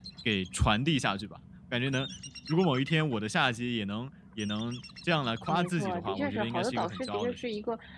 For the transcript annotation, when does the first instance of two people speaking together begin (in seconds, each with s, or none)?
5.5 s